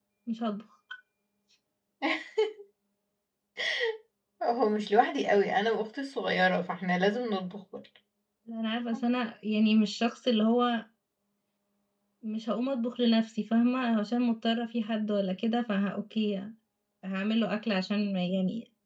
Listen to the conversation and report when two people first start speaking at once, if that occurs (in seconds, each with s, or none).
none